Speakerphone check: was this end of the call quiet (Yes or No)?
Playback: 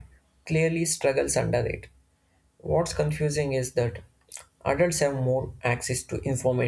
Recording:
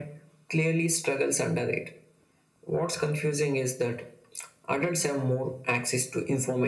Yes